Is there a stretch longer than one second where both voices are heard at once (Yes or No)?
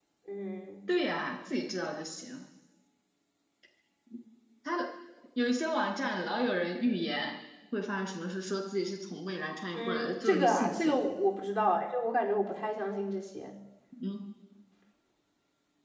Yes